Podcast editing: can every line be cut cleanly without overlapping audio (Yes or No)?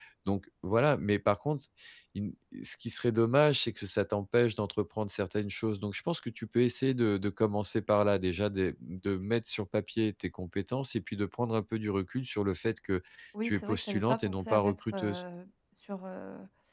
No